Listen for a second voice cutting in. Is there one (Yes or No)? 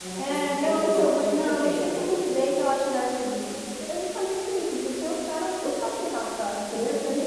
Yes